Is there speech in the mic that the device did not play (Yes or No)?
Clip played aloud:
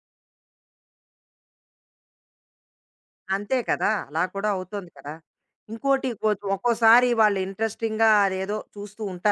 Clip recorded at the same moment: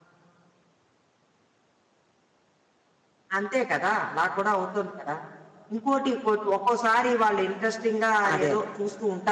Yes